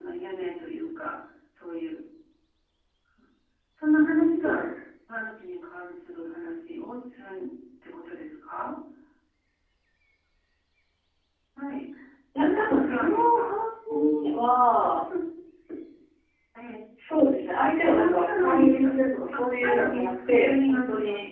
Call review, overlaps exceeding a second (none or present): present